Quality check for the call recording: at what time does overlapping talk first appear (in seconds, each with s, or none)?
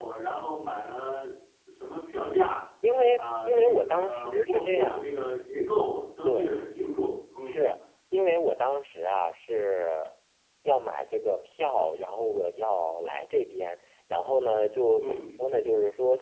3.2 s